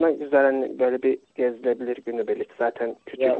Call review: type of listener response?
taking over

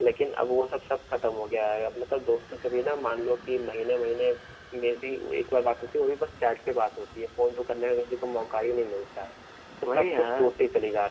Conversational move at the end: listening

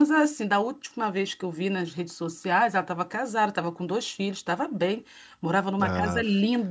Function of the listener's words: listening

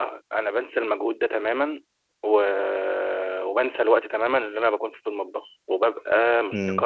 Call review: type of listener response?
listening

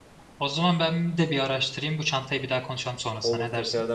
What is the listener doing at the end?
taking over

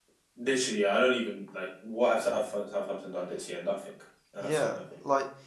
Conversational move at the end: taking over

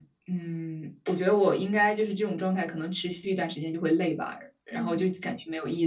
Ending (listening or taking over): listening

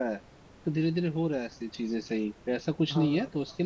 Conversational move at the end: listening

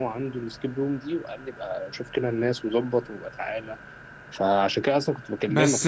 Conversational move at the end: taking over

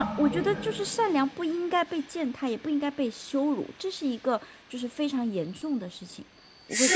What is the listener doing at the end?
taking over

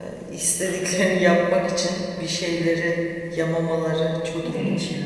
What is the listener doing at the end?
taking over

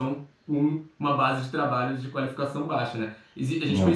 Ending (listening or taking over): listening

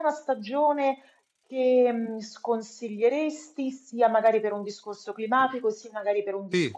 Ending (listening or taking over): listening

